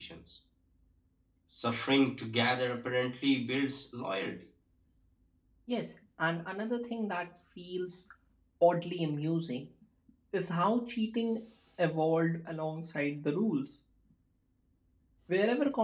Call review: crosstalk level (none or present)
none